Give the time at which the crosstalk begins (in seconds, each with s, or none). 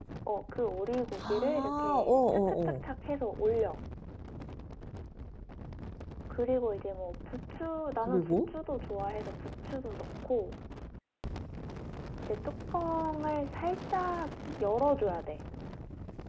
1.2 s